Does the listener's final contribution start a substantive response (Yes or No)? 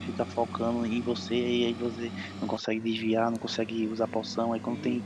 No